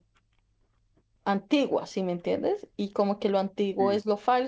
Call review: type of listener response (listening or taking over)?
listening